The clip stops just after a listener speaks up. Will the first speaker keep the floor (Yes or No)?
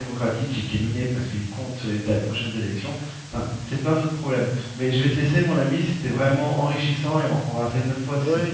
No